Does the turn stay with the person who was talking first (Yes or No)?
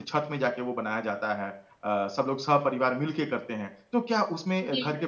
Yes